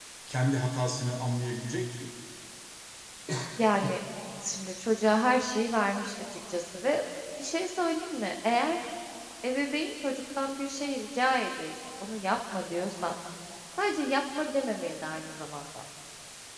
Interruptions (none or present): none